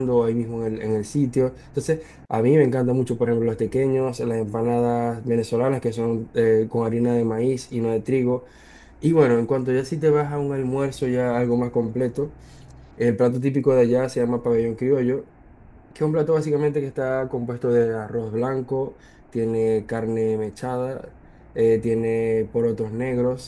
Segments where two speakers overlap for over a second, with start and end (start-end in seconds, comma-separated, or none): none